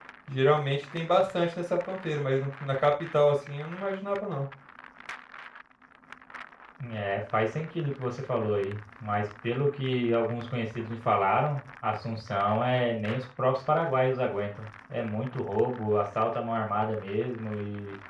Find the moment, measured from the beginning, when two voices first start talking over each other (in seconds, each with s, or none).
none